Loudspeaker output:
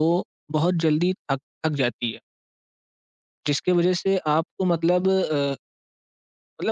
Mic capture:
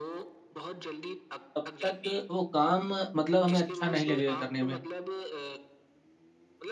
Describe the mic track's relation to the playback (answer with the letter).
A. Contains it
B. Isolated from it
A